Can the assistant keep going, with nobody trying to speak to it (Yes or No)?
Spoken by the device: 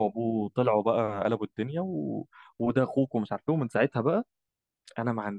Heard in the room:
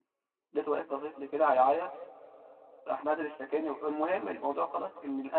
No